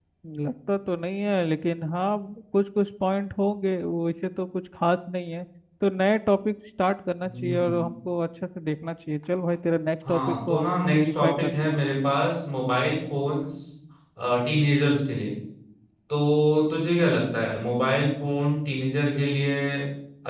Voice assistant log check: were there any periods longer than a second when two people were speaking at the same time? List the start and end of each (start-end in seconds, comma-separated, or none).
10.1-11.8